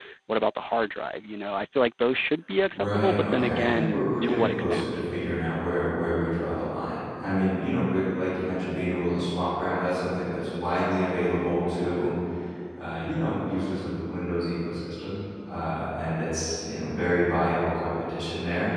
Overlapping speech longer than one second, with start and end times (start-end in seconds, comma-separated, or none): 2.7-4.9